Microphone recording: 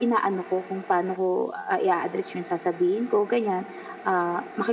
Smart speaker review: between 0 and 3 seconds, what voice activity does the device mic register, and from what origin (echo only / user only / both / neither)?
echo only